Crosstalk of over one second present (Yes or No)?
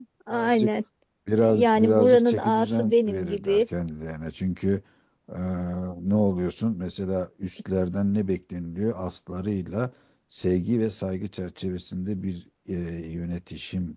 Yes